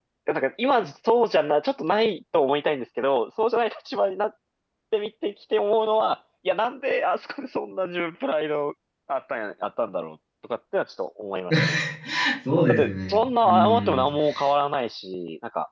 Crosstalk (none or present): present